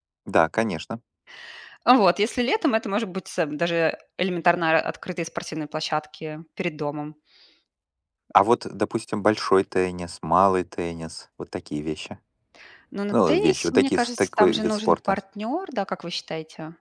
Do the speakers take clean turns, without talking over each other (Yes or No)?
No